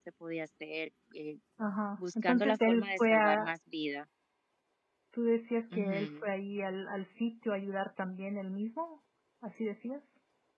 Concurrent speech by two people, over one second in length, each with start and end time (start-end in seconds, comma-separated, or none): 2.2-3.5